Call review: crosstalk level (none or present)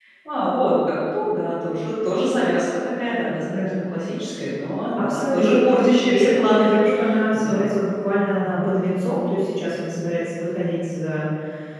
present